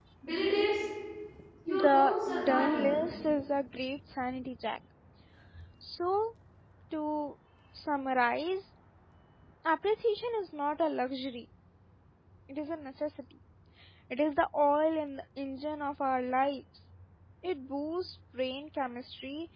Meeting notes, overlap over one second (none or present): present